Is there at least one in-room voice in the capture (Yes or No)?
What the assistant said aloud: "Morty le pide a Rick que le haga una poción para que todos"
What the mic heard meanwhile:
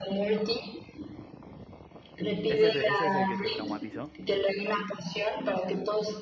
Yes